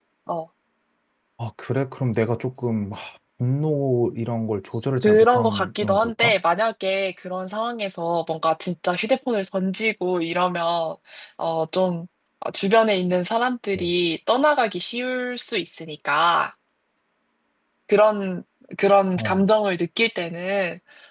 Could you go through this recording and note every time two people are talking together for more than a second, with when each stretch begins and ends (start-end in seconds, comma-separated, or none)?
5.0-6.3